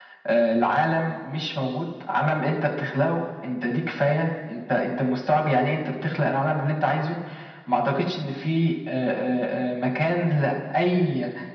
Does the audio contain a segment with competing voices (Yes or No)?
No